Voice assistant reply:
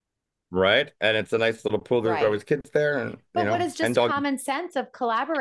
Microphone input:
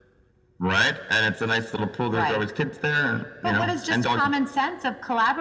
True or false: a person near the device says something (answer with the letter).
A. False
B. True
A